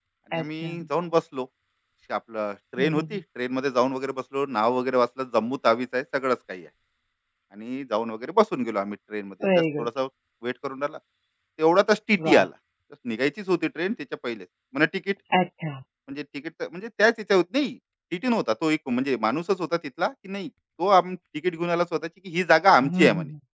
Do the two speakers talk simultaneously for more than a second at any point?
No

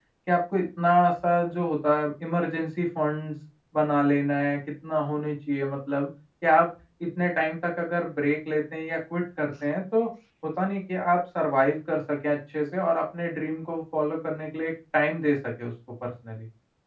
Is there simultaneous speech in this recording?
No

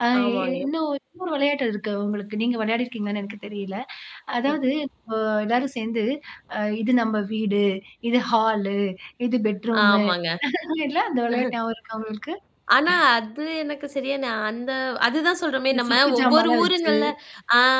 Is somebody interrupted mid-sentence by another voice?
Yes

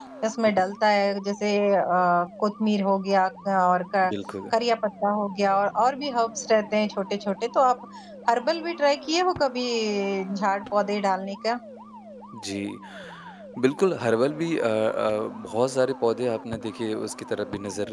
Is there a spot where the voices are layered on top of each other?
No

